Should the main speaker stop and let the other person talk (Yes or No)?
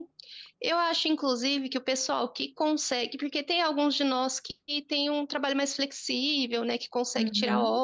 No